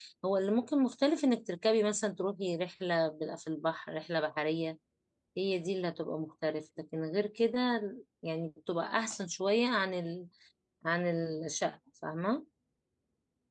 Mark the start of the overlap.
none

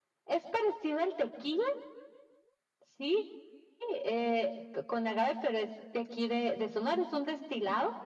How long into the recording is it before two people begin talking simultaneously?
none

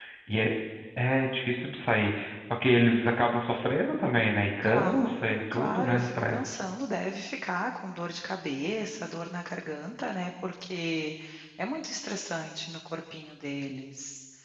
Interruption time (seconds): 4.6 s

